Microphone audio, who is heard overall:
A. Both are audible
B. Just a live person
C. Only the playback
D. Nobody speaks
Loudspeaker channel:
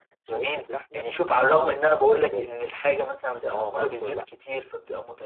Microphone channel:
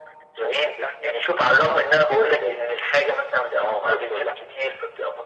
C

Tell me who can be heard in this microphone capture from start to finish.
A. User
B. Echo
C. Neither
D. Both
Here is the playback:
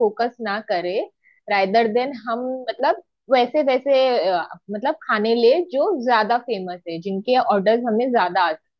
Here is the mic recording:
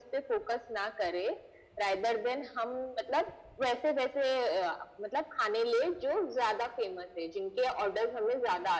B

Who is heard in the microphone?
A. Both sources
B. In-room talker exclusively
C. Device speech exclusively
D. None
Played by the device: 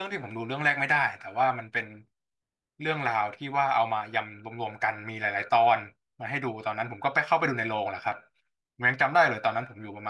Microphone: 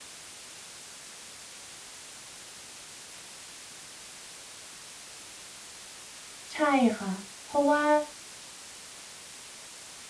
B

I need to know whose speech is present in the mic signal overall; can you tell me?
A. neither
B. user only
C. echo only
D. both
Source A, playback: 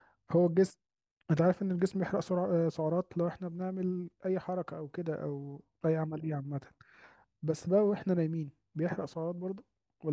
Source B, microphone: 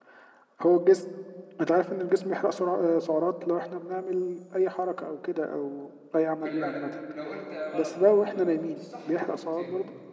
D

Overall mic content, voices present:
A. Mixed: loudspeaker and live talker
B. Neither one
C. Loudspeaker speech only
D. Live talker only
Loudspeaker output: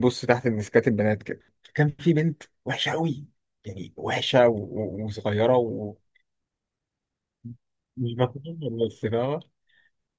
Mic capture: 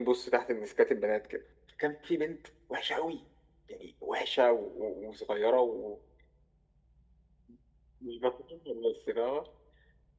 C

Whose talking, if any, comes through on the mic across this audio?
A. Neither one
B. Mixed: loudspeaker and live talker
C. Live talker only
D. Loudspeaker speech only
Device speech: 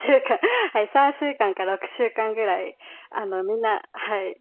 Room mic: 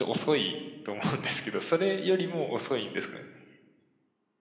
C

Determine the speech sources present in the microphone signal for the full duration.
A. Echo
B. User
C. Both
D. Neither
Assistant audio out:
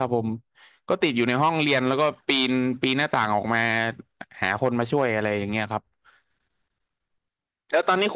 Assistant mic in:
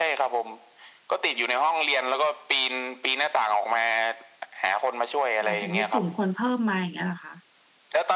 C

